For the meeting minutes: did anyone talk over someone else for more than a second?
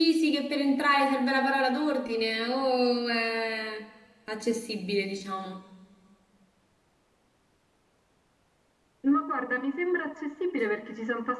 No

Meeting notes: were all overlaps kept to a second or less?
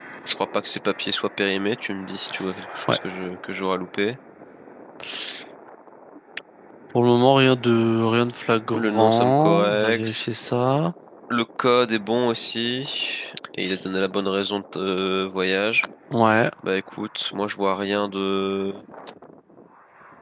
No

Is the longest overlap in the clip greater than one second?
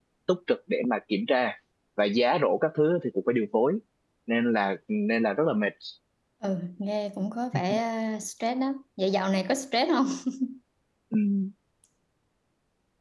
No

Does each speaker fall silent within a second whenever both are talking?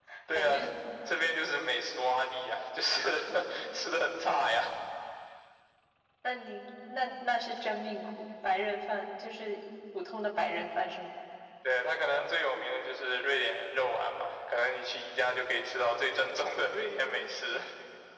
Yes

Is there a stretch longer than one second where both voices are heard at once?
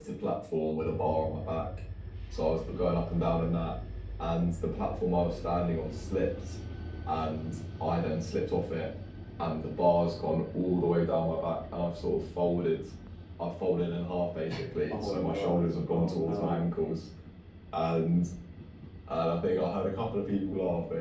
Yes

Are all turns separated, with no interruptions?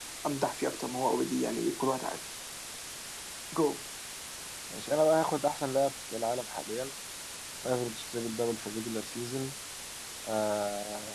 Yes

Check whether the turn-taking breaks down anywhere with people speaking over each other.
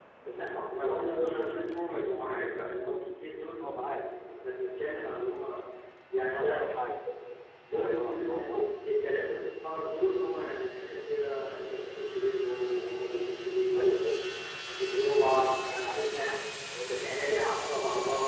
Yes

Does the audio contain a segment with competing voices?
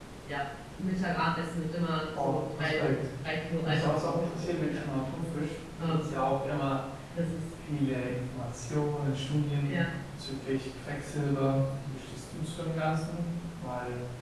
Yes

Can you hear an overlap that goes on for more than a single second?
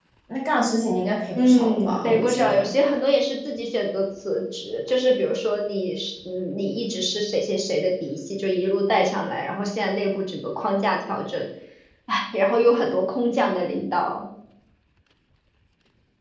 Yes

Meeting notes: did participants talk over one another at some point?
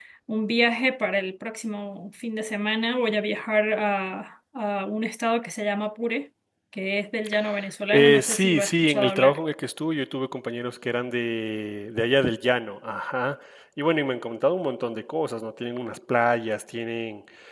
Yes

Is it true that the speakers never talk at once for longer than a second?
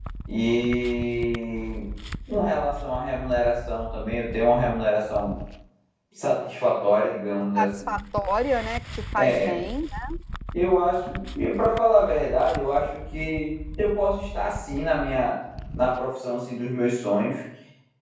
Yes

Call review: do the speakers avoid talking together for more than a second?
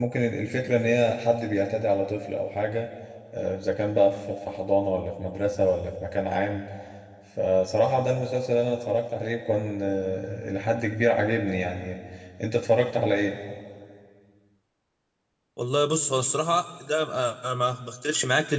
Yes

